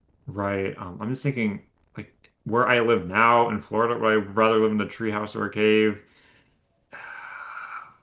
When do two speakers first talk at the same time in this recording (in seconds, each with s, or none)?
none